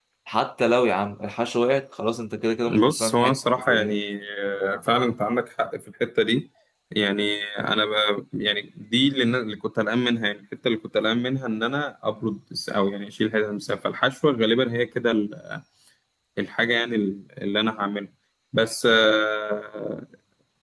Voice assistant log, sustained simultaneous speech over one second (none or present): present